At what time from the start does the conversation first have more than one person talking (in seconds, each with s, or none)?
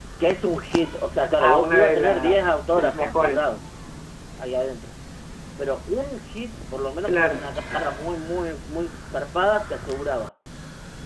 1.4 s